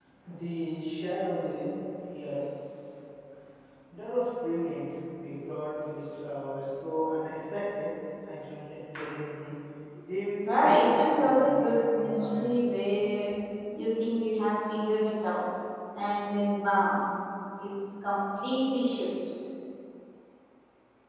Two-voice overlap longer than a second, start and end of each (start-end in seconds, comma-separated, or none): 10.4-12.4